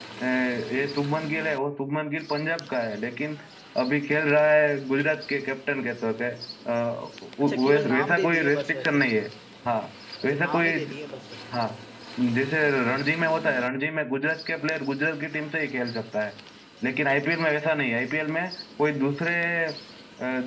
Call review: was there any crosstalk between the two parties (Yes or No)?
Yes